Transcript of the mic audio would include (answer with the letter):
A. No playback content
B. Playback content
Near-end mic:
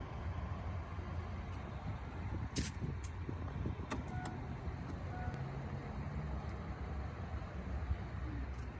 A